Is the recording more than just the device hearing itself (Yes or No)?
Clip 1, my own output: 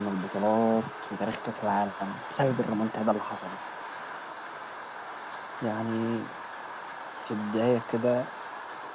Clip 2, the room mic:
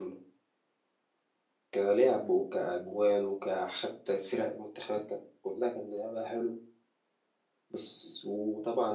Yes